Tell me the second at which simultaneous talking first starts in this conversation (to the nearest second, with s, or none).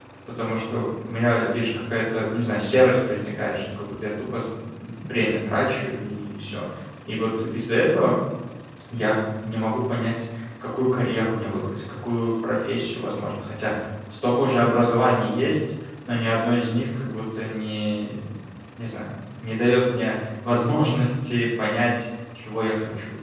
none